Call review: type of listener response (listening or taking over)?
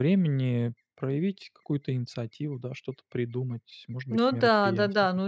taking over